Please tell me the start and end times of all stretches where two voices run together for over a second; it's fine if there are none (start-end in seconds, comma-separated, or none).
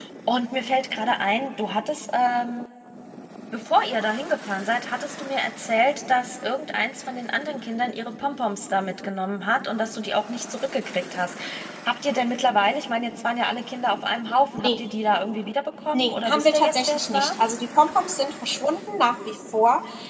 15.9-17.3